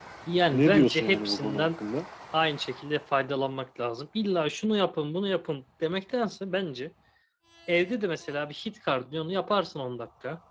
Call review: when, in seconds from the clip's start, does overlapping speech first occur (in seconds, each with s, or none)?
0.5 s